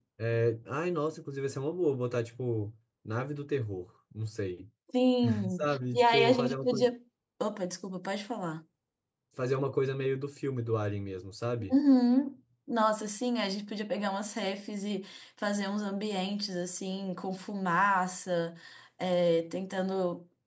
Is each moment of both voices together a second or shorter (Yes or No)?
No